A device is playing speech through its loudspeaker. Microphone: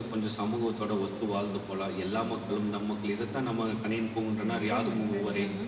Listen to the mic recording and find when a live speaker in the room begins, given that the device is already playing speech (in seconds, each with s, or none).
4.4 s